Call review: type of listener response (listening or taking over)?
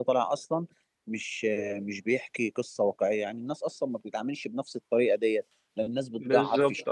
listening